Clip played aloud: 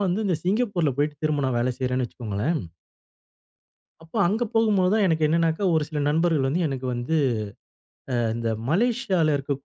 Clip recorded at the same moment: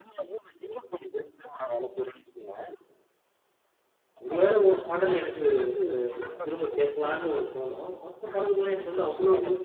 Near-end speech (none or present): present